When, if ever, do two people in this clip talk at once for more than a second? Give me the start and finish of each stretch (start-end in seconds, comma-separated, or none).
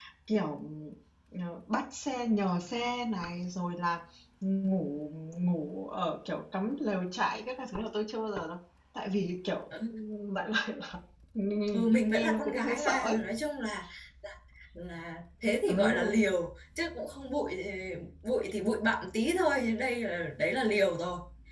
11.7-13.2